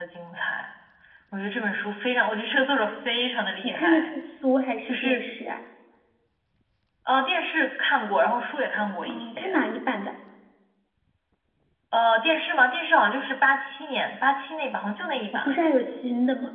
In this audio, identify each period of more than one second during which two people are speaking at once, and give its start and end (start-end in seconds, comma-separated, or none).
none